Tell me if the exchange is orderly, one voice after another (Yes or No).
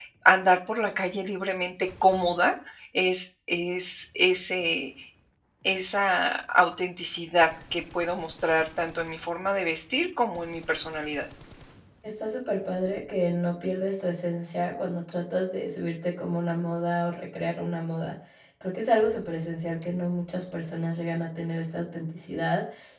Yes